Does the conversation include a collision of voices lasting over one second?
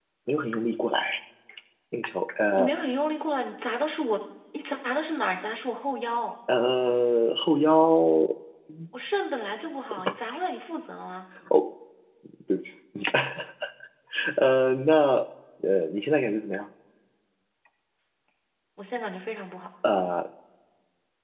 No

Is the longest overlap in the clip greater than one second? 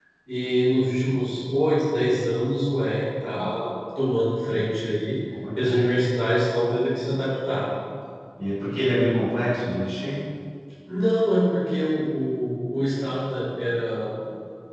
No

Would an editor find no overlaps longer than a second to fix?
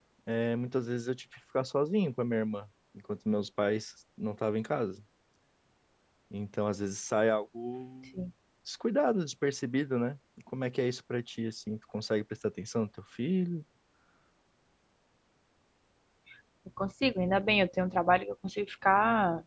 Yes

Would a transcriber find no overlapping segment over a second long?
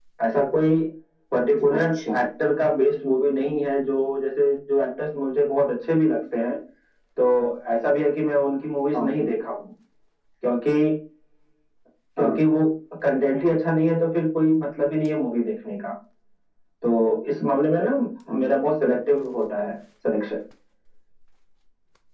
Yes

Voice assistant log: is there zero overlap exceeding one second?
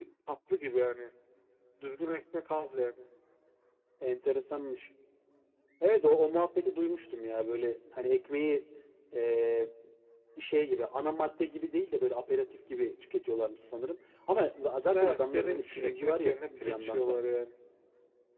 No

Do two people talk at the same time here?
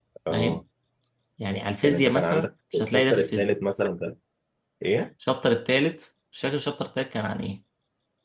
Yes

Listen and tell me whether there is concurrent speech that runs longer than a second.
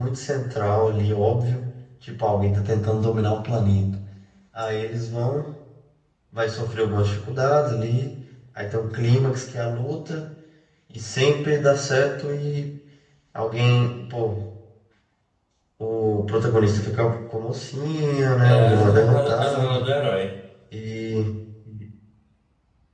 Yes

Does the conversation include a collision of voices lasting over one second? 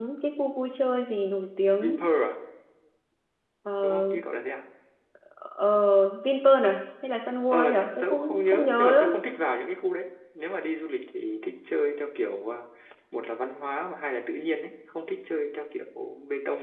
Yes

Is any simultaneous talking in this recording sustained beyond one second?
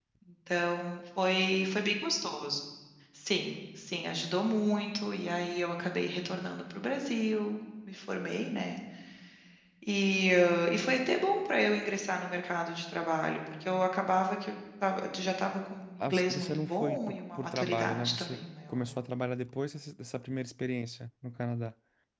Yes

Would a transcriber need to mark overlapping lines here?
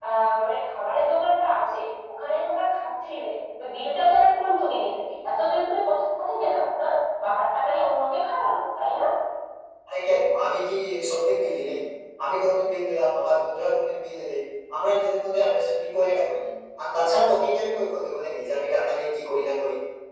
No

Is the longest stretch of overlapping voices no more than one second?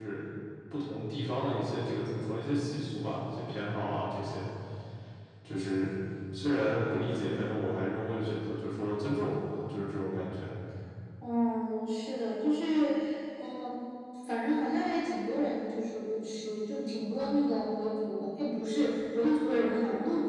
Yes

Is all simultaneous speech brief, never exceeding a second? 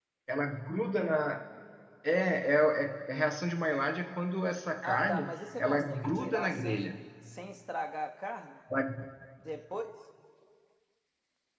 No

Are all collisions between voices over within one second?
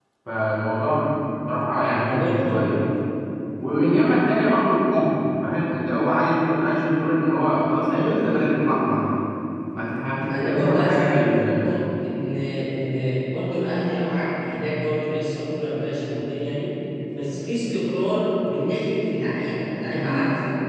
No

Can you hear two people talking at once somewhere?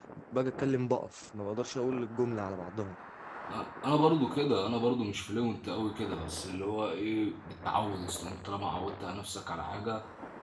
No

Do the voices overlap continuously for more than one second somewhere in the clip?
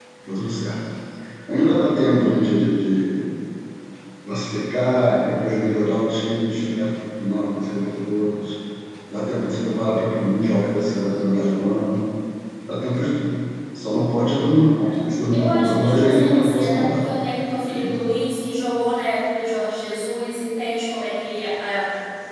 Yes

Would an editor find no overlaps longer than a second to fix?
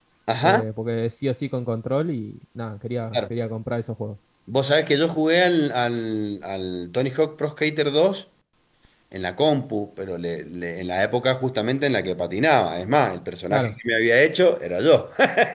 Yes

